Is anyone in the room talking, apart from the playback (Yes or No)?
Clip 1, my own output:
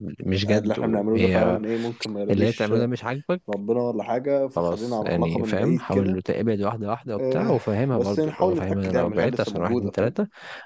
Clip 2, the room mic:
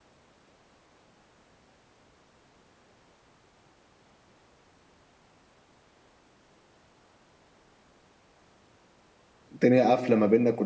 Yes